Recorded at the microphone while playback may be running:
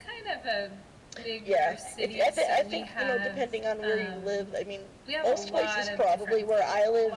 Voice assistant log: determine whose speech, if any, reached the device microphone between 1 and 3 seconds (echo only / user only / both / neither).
echo only